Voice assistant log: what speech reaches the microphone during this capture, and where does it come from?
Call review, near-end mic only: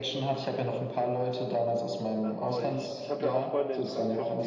both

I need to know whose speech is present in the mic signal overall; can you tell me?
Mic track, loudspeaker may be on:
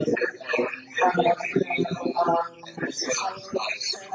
echo only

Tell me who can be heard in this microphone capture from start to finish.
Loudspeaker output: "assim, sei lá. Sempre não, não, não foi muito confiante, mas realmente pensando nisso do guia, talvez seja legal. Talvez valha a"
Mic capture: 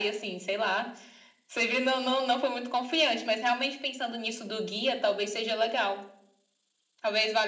echo only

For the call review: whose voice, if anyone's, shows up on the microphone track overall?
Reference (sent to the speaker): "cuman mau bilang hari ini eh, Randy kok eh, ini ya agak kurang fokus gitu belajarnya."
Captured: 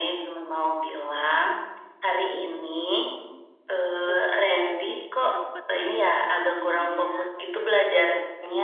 both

